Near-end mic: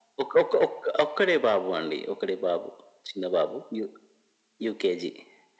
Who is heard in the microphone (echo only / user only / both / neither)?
echo only